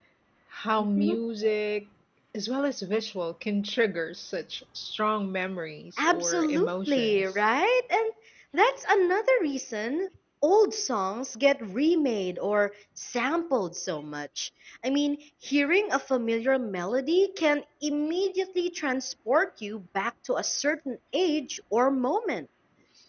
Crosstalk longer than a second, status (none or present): present